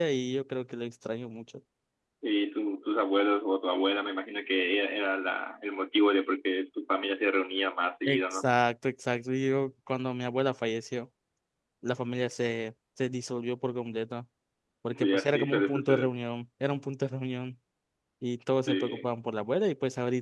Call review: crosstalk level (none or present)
present